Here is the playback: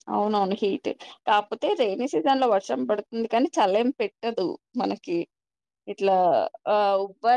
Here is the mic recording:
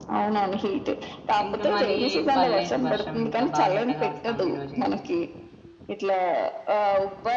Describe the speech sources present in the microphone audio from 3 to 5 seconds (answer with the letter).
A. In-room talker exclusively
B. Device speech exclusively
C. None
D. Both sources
D